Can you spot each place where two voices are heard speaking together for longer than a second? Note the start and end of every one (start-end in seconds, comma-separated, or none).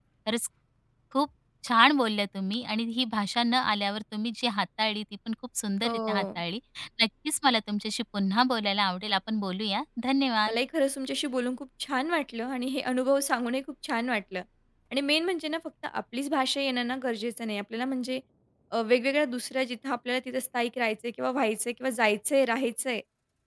none